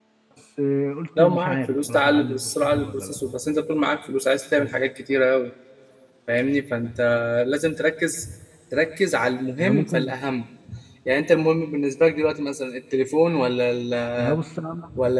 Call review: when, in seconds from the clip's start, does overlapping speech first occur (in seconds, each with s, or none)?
1.2 s